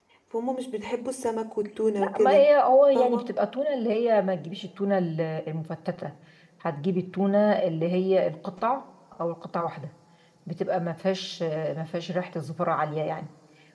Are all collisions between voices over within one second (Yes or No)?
Yes